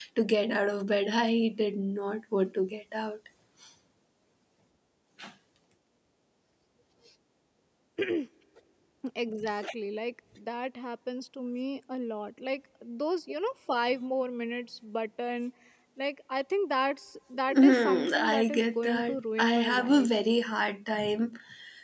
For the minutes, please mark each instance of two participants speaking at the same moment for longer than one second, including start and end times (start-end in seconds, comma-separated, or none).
17.6-20.1